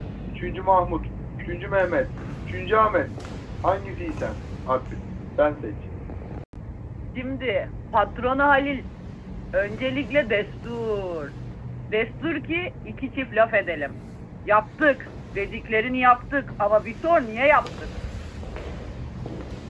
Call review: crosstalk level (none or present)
none